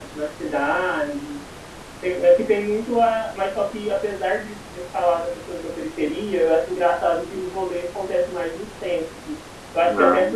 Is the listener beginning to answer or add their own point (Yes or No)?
No